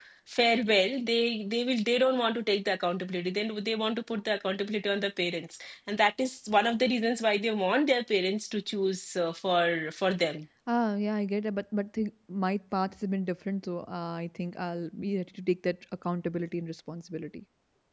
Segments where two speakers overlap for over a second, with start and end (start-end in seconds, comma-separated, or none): none